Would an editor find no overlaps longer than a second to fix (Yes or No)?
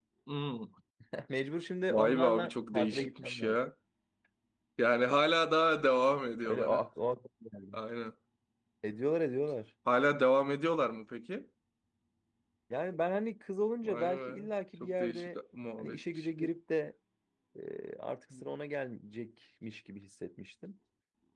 No